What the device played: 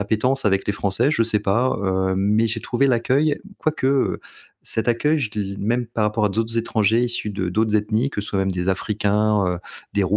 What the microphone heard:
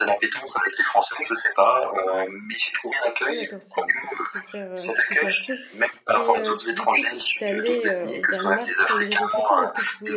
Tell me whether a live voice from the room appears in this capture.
Yes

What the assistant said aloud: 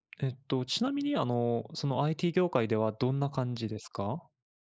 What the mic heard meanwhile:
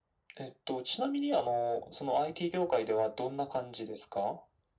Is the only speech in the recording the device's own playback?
Yes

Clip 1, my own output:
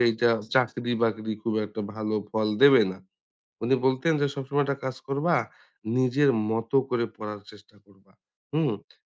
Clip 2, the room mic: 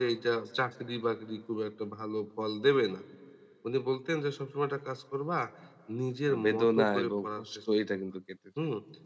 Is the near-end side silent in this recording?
No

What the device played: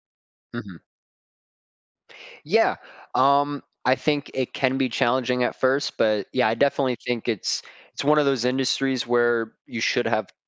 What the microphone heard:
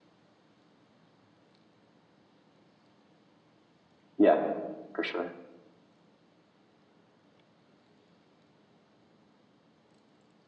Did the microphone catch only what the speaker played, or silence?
No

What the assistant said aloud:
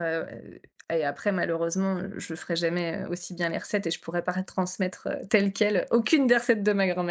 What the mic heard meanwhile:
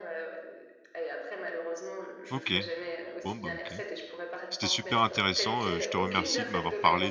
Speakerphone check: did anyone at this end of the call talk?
Yes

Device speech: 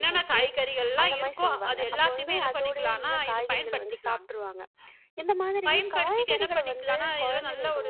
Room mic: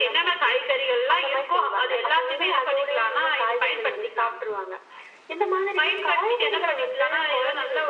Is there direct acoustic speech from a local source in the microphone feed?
No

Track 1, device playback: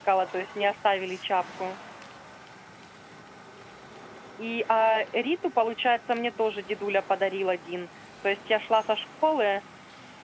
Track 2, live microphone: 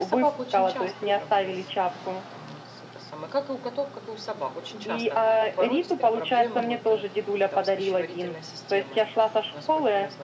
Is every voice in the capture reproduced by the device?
No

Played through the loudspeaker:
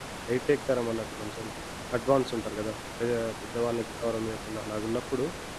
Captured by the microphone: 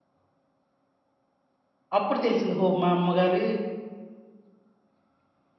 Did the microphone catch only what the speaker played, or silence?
No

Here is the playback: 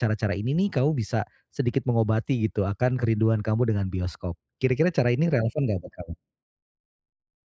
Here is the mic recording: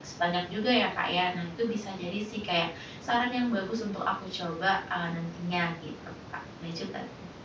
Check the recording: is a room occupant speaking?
Yes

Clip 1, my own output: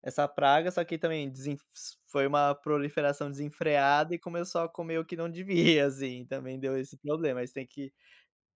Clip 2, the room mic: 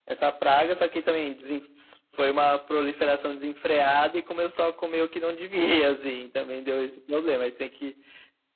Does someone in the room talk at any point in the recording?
No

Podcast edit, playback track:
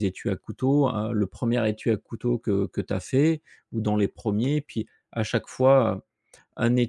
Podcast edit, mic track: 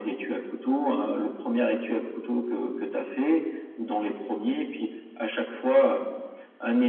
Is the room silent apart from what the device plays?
Yes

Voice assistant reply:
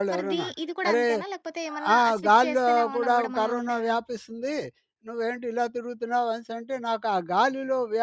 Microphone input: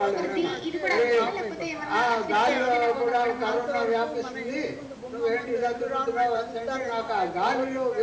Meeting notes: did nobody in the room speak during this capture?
No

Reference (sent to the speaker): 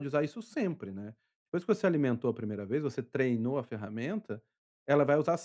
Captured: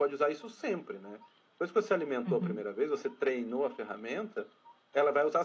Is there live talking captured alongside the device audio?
Yes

